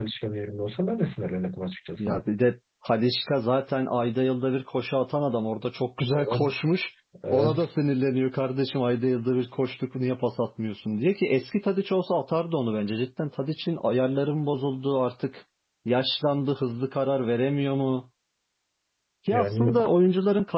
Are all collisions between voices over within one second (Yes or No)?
Yes